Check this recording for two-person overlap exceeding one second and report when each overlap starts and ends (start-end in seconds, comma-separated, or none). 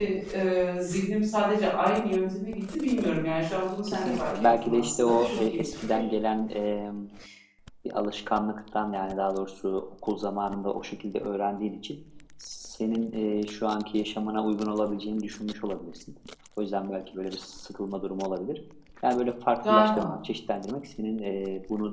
3.9-6.0